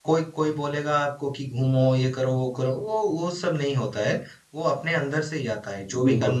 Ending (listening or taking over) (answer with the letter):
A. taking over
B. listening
B